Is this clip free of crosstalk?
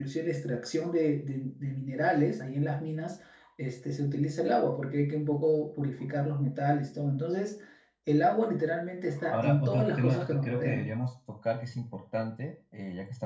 No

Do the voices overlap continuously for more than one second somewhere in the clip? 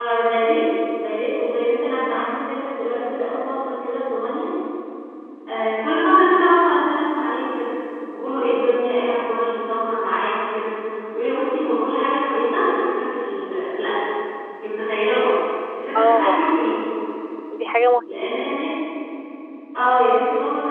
No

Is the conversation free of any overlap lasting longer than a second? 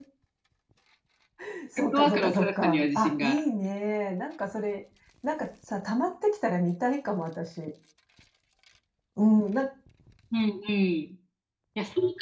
No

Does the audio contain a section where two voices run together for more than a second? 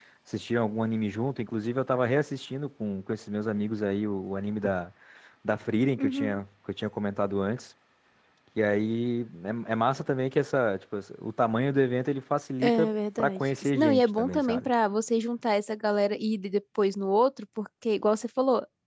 Yes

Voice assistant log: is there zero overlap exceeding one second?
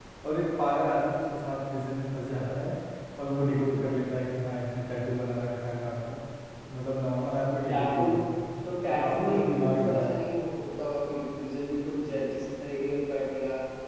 No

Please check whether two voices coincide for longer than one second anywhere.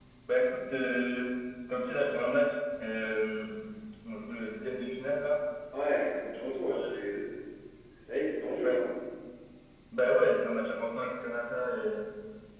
No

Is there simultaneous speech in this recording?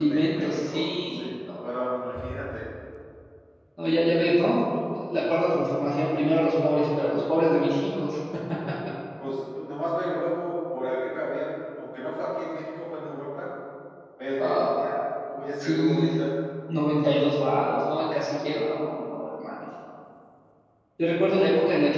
Yes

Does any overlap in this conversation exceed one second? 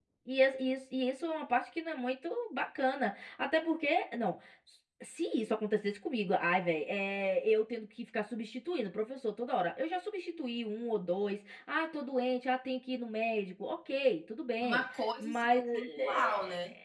Yes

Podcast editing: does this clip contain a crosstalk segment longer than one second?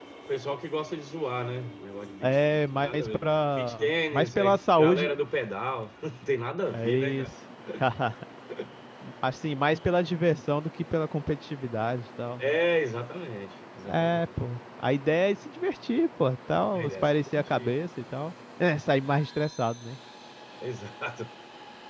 Yes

